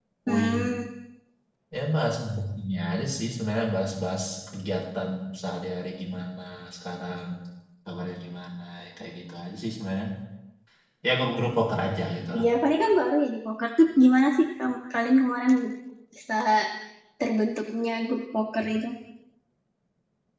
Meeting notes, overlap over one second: none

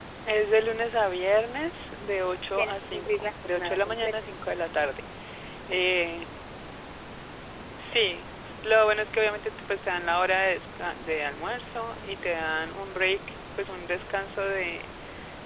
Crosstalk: present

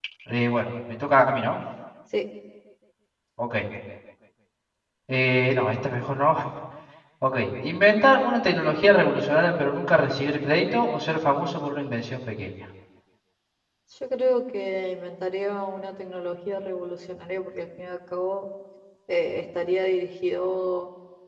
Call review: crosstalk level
none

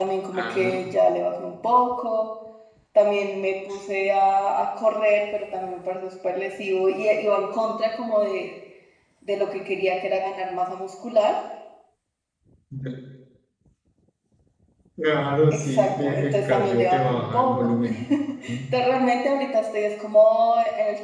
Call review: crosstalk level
present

